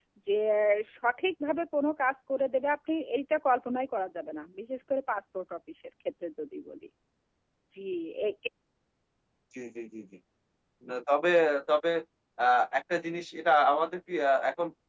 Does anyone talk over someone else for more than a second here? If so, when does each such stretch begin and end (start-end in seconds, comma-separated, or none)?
none